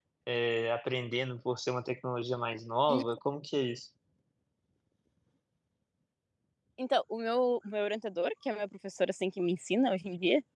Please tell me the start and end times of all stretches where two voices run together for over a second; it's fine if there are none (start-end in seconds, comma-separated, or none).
none